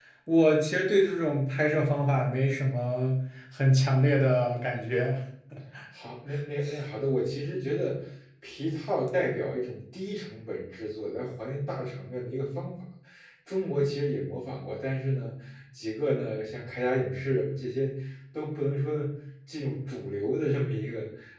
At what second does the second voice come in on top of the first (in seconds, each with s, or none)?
none